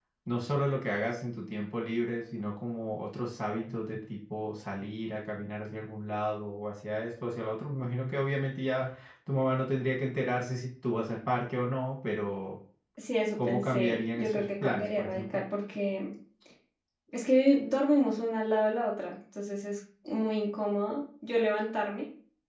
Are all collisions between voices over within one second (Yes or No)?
No